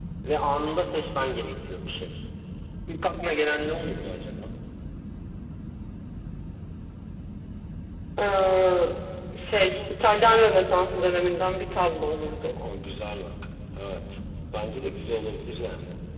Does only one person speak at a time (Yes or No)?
Yes